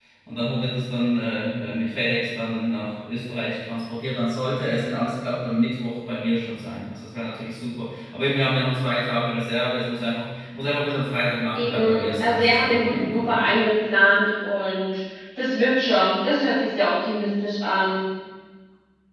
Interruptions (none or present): present